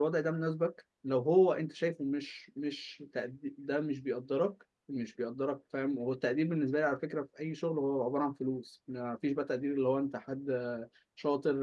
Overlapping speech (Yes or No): No